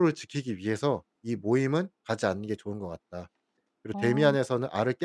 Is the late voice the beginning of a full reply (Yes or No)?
No